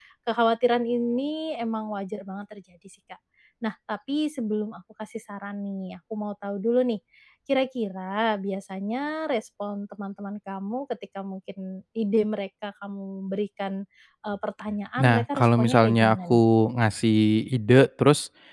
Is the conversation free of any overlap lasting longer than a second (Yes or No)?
No